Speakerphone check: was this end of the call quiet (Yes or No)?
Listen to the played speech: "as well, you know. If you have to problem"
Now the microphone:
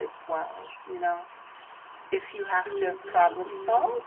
No